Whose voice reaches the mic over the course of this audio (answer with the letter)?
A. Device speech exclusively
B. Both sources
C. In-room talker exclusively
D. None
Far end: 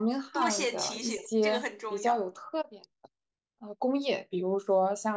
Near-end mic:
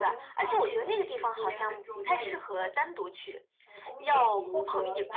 B